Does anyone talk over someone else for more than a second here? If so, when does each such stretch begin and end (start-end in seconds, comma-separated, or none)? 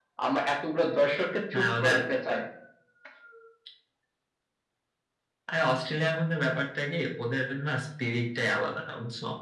none